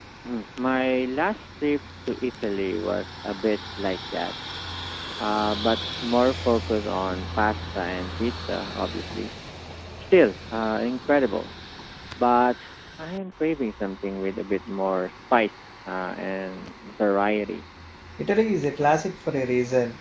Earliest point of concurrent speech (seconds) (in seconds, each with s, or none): none